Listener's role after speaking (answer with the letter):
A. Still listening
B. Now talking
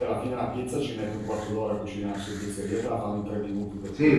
B